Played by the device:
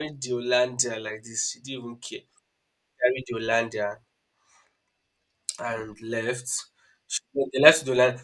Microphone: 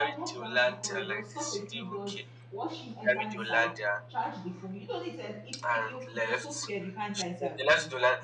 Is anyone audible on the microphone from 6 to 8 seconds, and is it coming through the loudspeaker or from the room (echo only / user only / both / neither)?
both